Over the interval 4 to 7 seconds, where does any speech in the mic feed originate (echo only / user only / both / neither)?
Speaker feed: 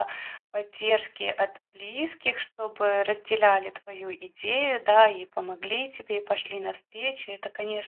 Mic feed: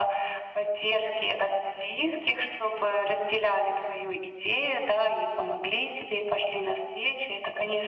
echo only